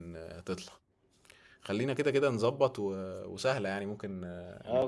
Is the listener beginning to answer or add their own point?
Yes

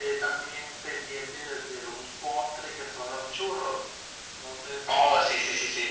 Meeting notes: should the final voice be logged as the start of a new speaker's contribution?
Yes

